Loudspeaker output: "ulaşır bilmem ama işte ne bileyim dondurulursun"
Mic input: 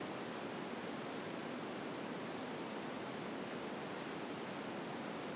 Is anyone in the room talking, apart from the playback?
No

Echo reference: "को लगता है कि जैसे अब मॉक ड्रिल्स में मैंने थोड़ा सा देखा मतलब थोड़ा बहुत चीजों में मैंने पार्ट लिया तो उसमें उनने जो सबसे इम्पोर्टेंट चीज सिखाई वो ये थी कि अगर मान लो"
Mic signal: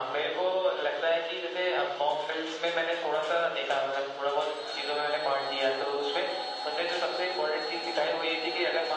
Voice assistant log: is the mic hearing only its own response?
Yes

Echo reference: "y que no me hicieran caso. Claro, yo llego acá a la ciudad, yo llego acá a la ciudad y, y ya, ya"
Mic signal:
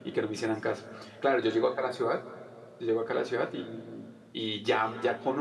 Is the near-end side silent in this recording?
Yes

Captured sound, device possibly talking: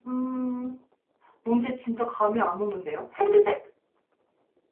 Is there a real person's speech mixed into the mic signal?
Yes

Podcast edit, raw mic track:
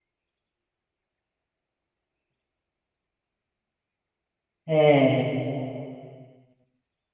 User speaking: Yes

